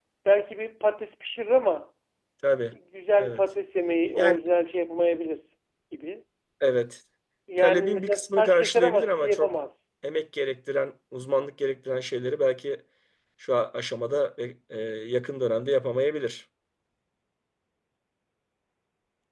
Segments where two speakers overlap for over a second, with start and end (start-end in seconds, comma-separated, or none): 7.6-9.5